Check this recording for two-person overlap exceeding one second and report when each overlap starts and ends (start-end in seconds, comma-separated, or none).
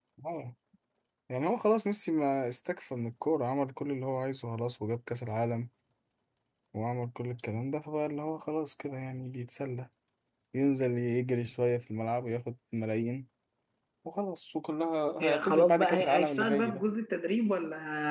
15.2-16.8